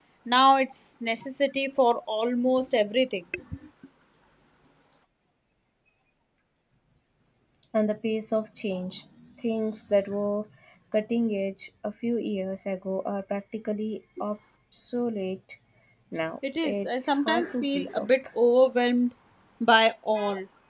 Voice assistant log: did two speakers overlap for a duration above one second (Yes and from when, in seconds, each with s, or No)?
Yes, from 16.6 s